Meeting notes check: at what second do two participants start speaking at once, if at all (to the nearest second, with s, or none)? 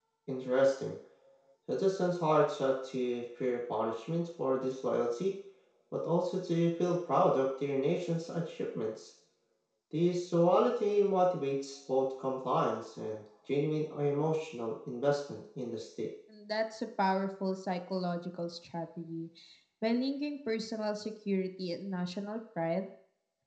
none